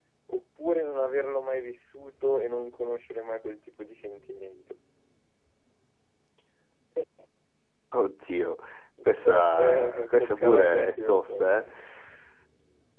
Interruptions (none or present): present